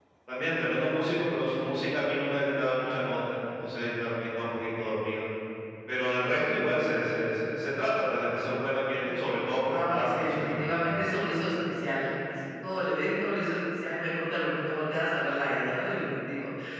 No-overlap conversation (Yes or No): No